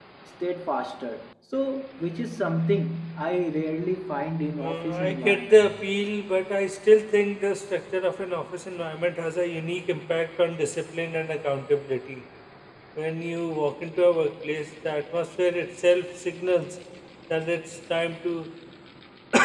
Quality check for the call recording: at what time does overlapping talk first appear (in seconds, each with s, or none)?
4.6 s